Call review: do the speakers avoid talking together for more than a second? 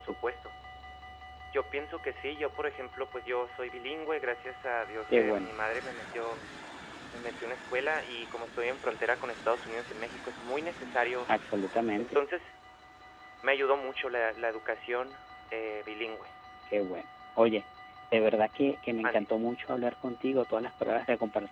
Yes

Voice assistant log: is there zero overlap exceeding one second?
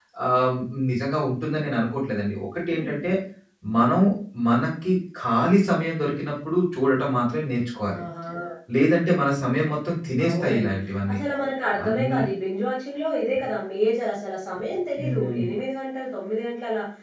Yes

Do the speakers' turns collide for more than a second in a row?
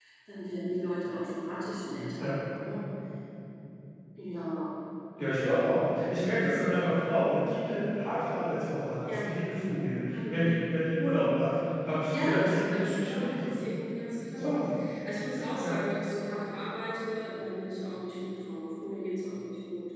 Yes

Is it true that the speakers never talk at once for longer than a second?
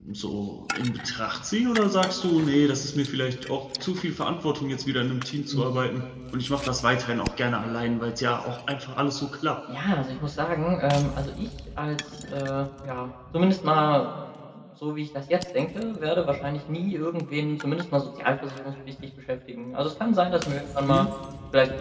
Yes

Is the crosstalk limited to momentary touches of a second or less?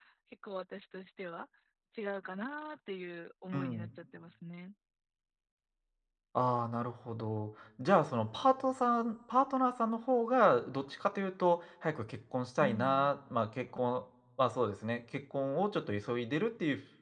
Yes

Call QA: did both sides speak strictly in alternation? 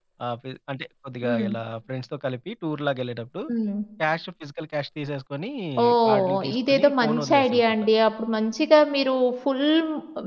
No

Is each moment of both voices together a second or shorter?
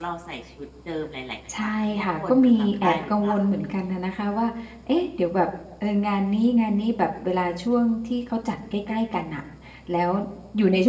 No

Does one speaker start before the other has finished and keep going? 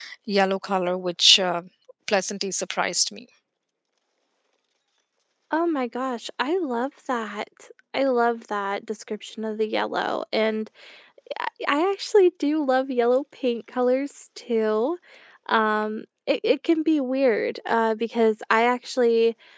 No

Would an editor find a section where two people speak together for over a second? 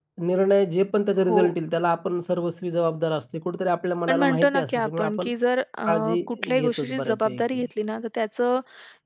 Yes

